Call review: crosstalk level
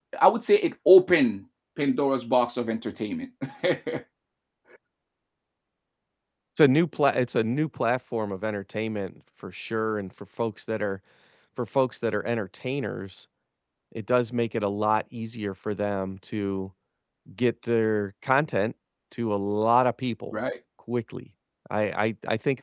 none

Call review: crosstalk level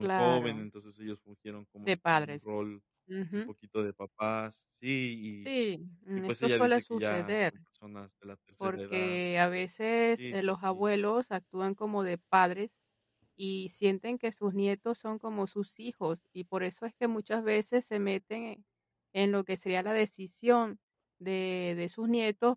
present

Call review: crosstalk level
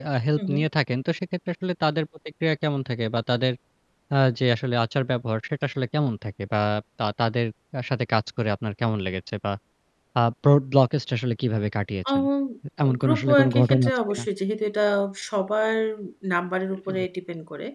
present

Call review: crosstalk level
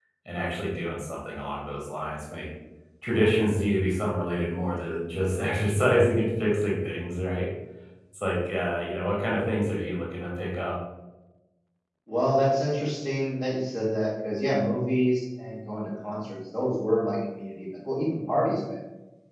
none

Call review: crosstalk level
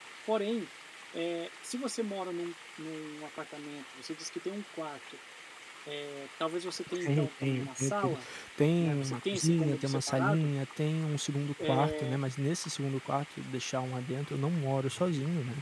present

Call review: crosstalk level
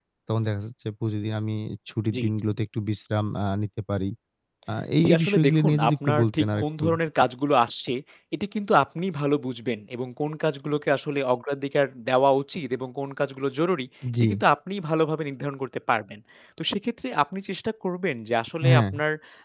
present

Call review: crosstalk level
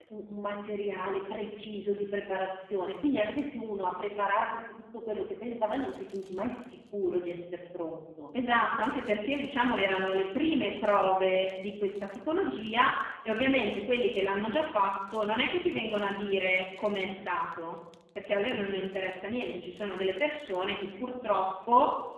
none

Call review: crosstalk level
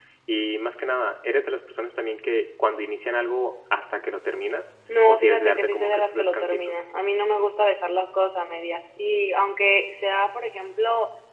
present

